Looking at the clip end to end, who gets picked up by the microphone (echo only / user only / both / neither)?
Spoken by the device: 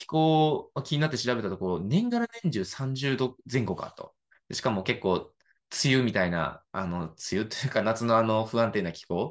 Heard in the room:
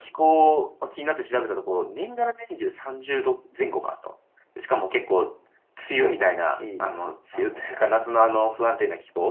both